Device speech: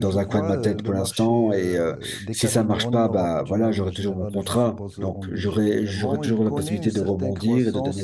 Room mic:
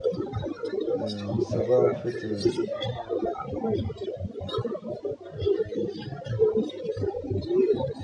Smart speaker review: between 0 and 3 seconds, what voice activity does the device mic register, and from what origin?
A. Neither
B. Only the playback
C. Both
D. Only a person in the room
C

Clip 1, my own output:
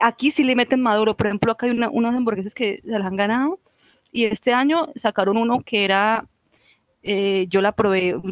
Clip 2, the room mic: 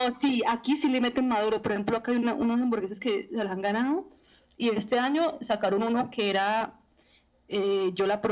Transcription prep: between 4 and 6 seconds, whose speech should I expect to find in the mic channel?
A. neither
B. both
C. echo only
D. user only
C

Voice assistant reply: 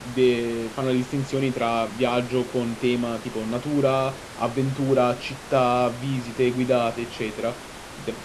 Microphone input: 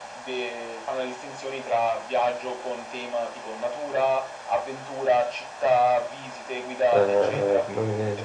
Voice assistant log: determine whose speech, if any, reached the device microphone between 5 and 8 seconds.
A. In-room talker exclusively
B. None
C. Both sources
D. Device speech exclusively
C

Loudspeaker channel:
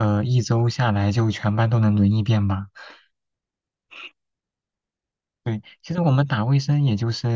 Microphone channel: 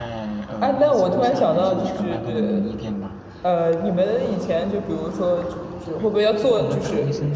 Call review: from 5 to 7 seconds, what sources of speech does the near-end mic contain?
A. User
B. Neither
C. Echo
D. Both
D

